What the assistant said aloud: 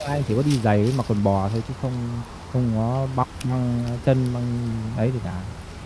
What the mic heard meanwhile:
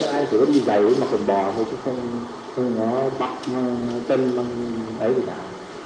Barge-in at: none

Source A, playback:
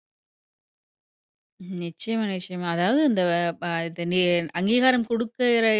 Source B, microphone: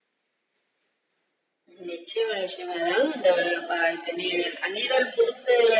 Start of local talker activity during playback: none

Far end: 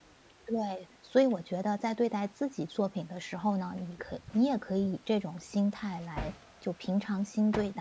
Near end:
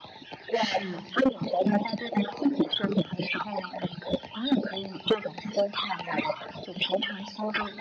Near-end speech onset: 0.5 s

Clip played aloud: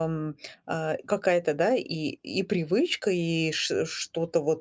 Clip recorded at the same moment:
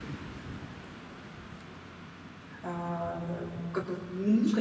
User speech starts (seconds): 2.6 s

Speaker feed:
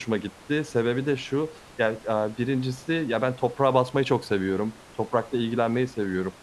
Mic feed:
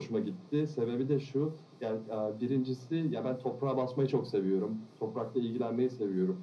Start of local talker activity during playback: none

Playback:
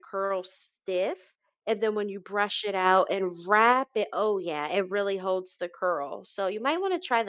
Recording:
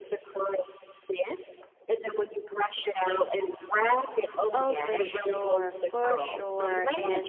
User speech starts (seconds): 4.5 s

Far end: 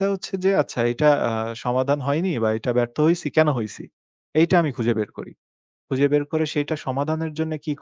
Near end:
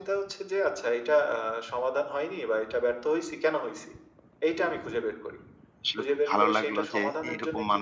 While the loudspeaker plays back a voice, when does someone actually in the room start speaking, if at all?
5.8 s

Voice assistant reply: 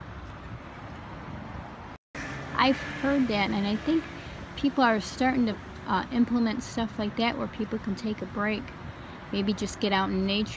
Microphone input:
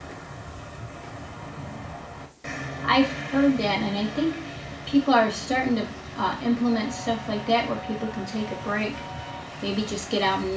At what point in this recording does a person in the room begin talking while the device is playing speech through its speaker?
none

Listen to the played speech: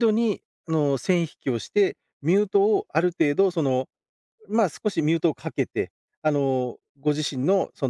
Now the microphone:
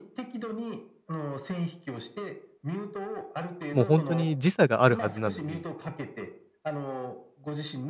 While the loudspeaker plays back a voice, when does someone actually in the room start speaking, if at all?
3.7 s

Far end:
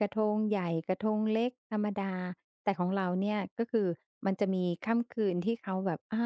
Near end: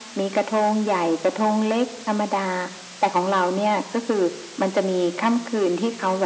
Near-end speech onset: none

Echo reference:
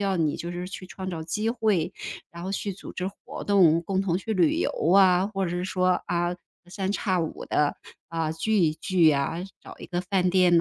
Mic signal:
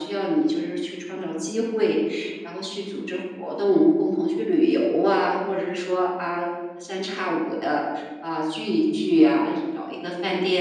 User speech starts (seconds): none

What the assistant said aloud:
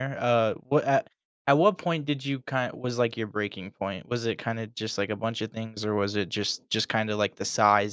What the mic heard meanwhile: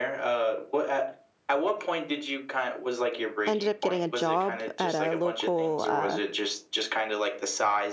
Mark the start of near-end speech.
3.5 s

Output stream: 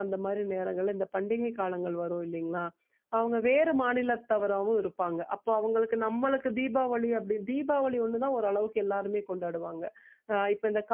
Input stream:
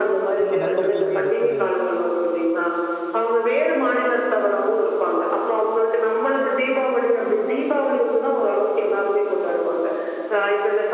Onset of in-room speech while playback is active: 0.4 s

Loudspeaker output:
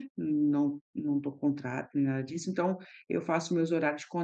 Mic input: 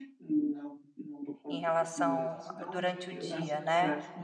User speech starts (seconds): 1.5 s

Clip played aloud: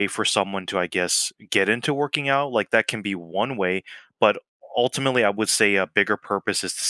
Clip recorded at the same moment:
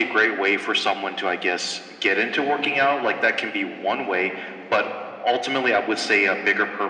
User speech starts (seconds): none

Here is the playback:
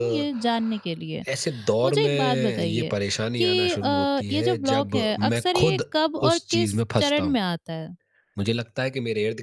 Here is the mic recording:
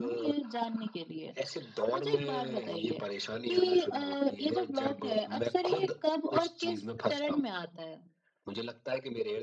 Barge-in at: none

